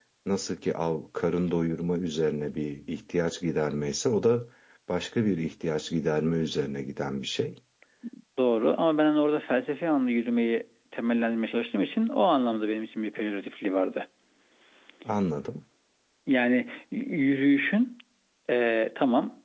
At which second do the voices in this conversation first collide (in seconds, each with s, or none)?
none